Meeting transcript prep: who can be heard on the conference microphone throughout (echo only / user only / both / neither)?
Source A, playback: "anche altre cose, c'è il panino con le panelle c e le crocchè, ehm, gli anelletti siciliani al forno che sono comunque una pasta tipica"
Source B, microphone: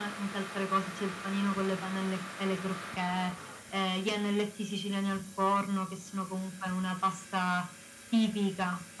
echo only